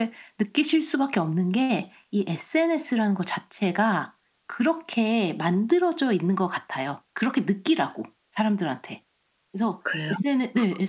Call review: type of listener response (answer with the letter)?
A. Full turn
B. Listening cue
B